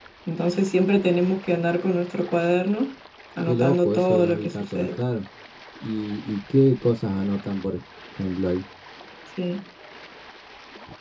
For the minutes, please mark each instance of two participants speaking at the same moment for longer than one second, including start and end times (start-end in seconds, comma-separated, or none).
3.4-5.0